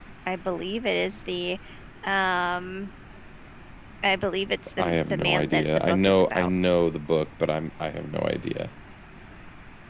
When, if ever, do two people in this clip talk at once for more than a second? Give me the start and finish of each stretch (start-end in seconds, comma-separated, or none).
4.8-6.5